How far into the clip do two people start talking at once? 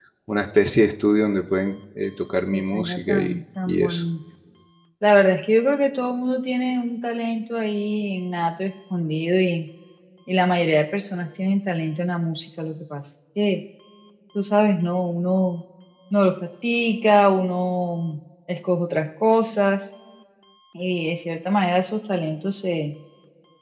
2.5 s

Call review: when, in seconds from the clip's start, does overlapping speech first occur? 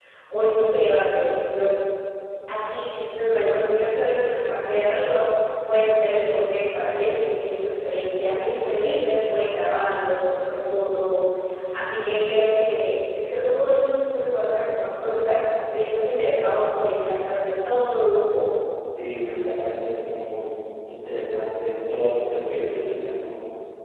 none

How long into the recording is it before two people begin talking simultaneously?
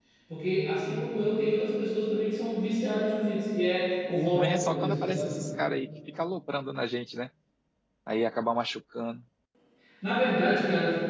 4.1 s

